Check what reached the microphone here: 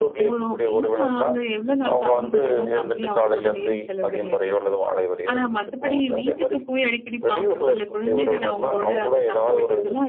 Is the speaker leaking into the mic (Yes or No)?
Yes